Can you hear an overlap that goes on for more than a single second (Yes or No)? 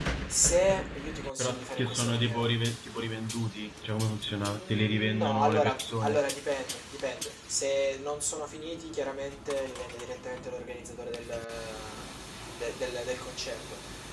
Yes